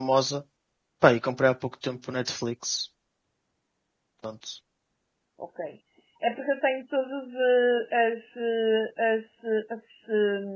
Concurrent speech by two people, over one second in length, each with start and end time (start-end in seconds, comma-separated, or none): none